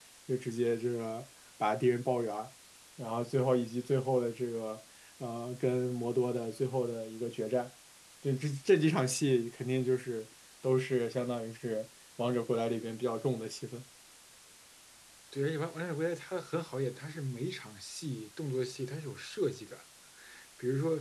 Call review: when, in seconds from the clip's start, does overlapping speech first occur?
none

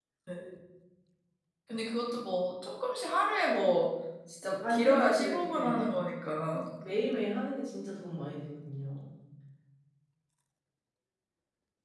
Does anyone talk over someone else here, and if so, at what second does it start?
4.6 s

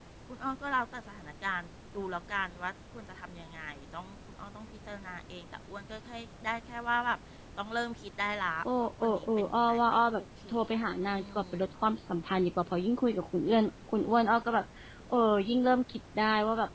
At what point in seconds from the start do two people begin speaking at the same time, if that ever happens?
8.7 s

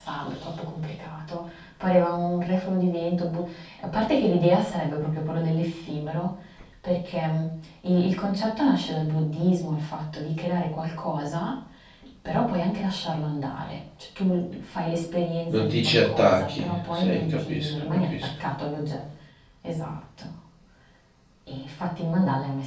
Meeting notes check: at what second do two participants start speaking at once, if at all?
15.5 s

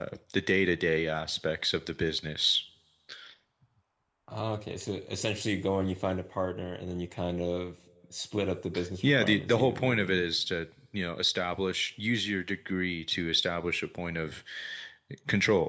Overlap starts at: 9.0 s

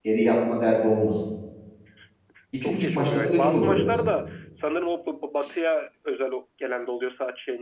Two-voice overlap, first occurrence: 2.6 s

